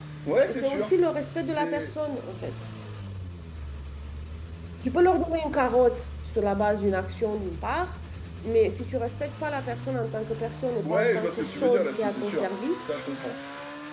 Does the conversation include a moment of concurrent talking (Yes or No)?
Yes